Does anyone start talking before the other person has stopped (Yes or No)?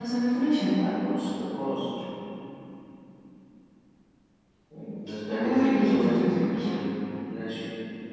Yes